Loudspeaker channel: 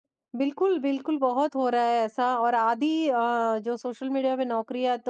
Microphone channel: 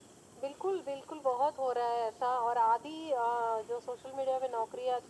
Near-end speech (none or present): none